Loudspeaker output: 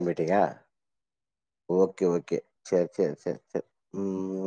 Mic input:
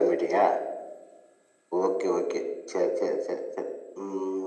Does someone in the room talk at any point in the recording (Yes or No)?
No